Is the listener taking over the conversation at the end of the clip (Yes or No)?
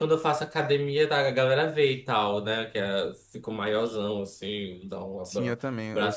Yes